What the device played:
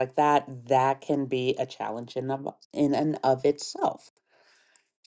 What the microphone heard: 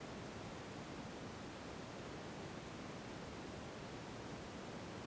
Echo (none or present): none